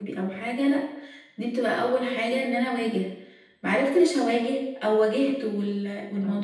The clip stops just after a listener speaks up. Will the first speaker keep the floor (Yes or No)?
Yes